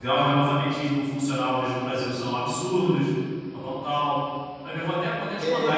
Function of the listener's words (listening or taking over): taking over